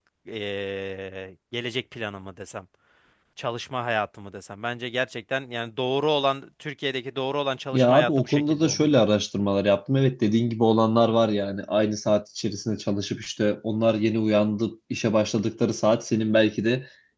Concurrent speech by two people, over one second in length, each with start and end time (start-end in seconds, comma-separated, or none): 7.7-9.0